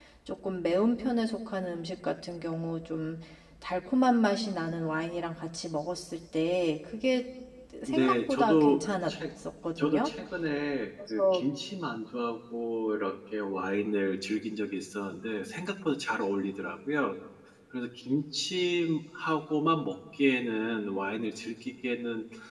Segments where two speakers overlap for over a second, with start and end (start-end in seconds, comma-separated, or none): 7.9-9.1